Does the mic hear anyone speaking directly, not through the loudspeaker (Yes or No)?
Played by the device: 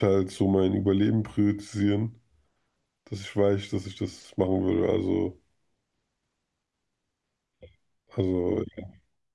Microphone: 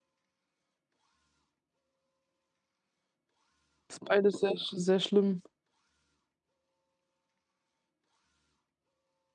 Yes